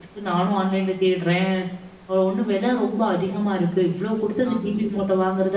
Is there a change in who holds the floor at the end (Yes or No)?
No